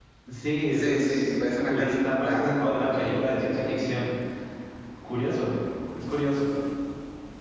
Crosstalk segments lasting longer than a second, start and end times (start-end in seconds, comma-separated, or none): 0.7-2.9